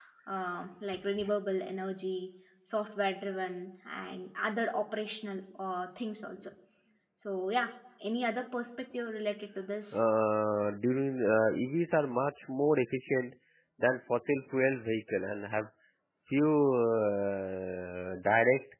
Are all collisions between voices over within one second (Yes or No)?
Yes